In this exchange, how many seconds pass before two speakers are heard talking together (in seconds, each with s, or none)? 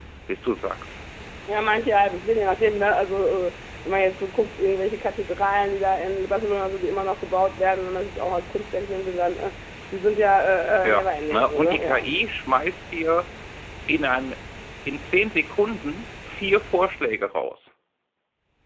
10.8 s